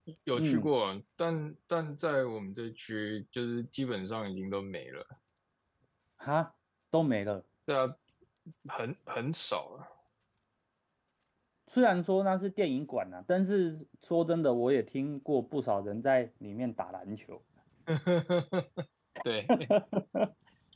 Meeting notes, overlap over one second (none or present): none